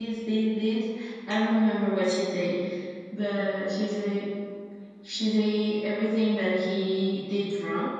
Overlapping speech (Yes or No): No